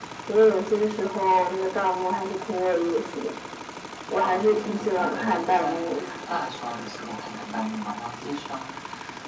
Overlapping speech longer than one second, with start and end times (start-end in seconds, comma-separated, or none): 4.2-5.9